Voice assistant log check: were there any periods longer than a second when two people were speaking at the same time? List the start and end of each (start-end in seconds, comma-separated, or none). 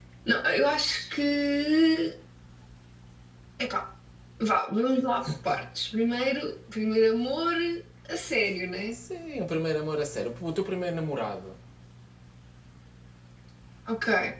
none